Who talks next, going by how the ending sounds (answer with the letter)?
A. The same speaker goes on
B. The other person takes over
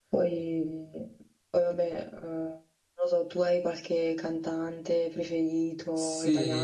B